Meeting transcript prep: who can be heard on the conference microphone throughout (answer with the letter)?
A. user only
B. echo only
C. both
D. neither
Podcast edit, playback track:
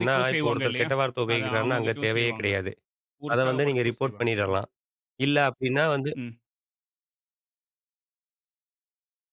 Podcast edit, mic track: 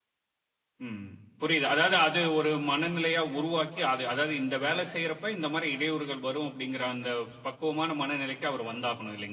A